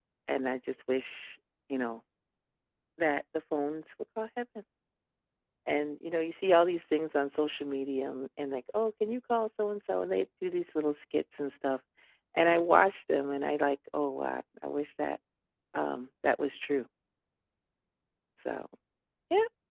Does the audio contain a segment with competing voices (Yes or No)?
No